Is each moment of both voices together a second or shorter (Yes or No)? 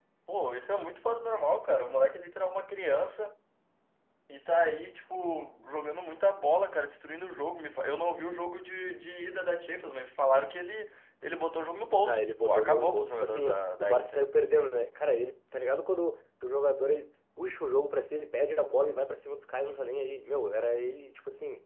No